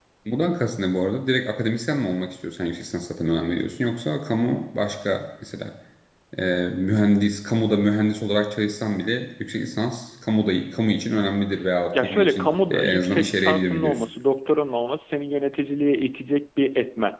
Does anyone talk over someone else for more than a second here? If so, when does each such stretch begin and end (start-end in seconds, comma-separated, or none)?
11.9-14.0